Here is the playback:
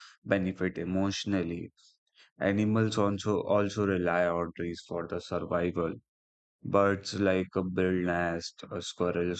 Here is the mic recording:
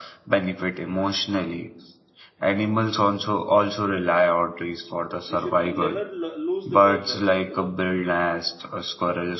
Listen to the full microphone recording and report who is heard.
both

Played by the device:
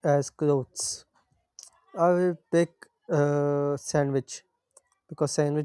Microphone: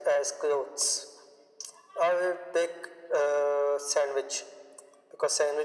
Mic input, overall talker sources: echo only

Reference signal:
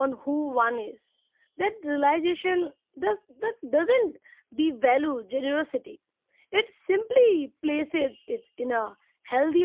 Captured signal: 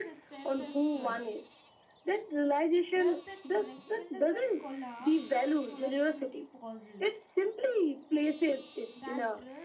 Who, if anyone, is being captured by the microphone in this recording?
both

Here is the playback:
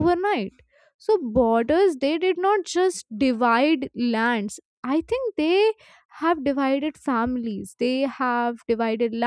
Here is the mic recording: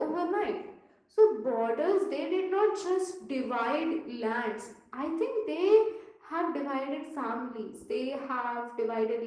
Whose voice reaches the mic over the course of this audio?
echo only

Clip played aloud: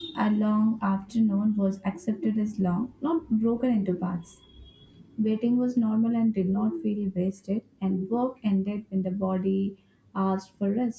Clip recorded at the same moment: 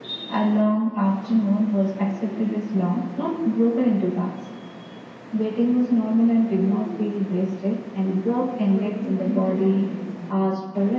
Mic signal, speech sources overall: both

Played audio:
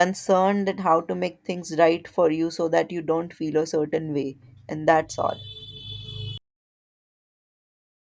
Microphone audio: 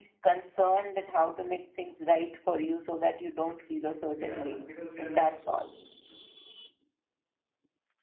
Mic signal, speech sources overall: both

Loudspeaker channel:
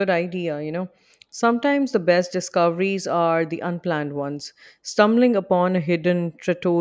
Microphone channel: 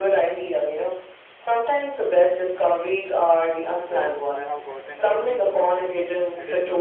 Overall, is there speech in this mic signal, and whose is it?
both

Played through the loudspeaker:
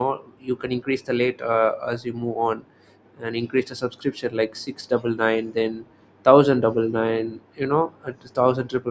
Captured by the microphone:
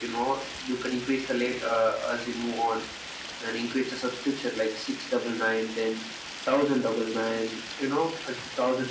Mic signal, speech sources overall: echo only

